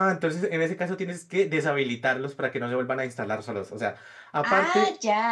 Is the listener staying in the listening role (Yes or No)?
Yes